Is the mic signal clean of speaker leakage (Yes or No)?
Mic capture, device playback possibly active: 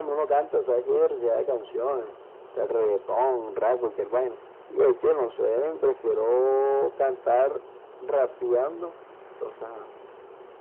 No